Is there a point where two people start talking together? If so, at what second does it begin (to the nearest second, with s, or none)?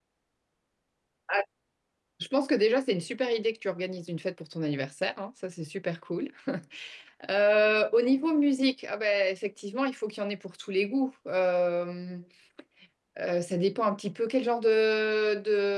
none